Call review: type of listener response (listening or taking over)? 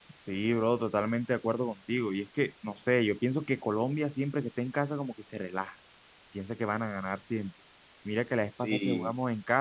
listening